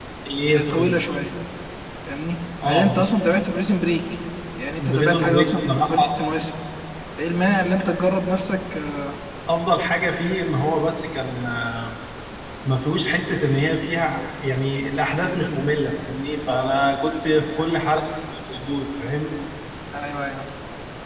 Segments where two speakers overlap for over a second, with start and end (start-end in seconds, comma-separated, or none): 4.8-6.1